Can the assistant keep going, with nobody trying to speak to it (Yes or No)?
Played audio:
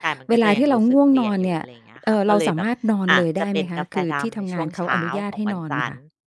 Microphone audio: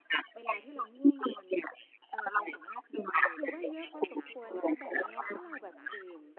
No